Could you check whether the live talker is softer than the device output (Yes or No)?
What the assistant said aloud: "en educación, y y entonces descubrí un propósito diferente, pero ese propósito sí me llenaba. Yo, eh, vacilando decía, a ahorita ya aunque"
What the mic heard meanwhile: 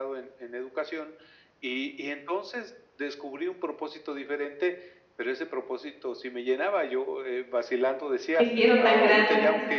No